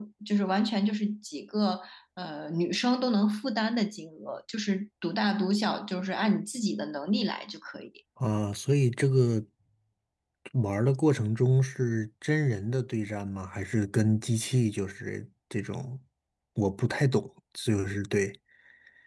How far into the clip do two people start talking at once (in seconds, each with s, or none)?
none